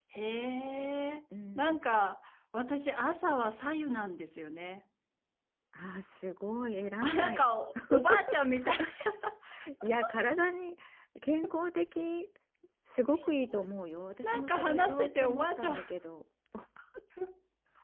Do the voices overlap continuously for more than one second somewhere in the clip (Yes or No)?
Yes